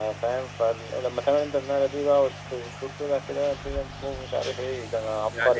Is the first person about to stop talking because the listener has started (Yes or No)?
Yes